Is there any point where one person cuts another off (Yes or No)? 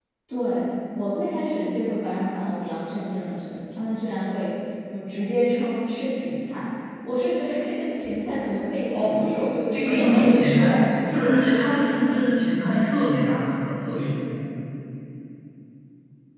Yes